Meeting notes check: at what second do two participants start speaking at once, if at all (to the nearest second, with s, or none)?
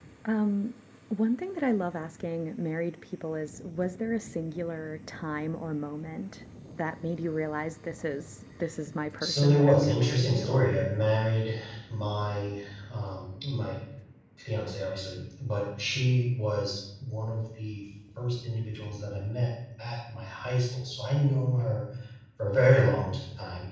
9 s